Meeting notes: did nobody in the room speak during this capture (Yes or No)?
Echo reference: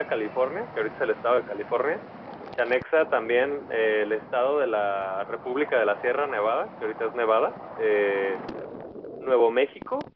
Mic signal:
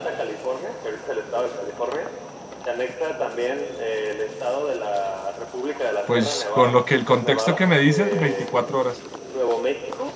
No